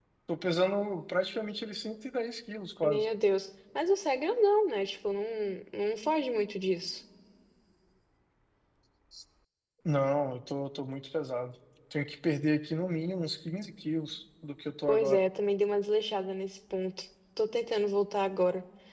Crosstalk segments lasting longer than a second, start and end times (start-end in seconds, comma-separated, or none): none